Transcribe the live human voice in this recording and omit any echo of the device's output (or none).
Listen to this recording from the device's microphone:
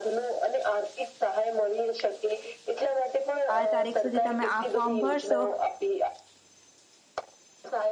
આ તારીખ સુધી તમે આ ફોર્મ ભરશો